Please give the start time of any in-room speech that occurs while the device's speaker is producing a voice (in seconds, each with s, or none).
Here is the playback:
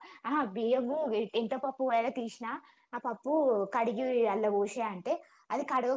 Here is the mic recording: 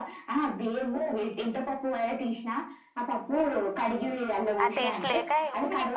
4.6 s